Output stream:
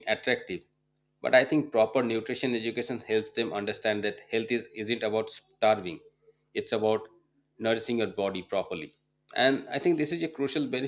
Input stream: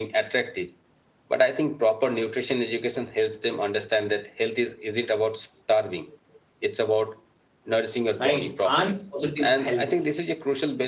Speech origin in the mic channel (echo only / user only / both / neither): both